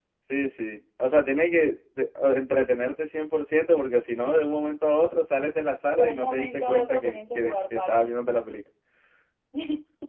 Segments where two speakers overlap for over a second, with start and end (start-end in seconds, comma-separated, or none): 5.9-8.2